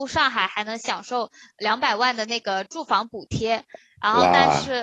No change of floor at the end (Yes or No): No